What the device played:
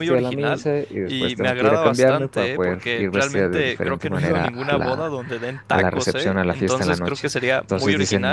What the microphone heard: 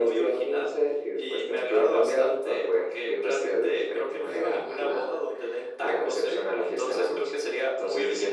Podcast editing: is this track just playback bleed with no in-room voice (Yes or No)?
Yes